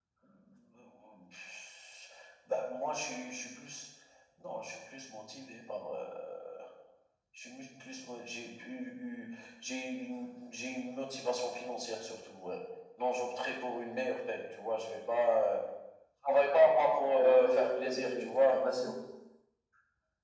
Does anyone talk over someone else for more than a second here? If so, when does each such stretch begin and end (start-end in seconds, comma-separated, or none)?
17.2-18.7